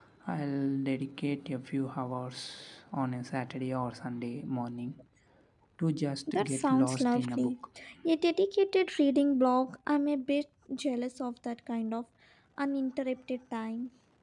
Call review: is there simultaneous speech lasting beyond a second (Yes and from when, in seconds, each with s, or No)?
Yes, from 6.3 s